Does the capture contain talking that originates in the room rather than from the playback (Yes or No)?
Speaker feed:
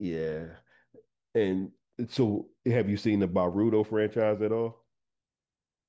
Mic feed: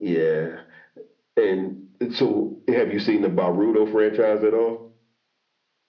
No